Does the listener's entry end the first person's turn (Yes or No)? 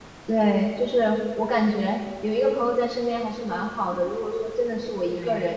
No